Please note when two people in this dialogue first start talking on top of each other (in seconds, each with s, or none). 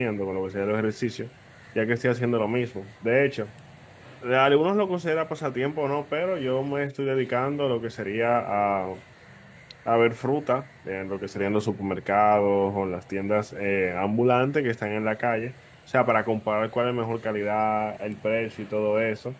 none